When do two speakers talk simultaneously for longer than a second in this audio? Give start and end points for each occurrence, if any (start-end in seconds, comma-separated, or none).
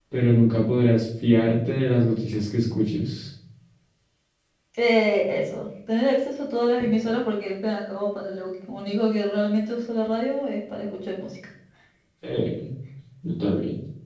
none